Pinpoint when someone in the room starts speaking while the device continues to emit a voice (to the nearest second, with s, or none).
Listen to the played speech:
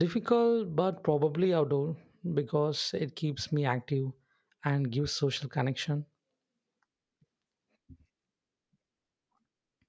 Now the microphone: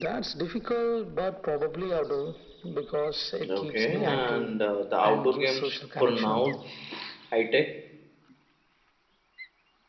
3 s